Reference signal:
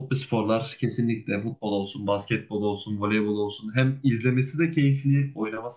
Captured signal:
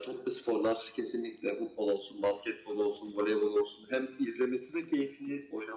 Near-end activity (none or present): none